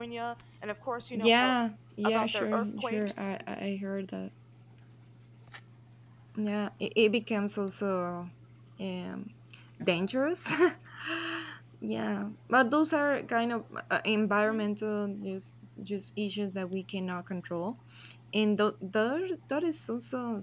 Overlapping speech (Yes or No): Yes